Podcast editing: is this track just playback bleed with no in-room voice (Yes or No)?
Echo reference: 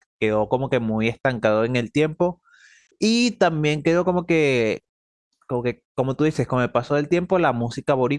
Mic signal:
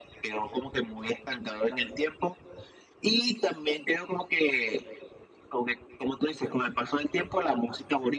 Yes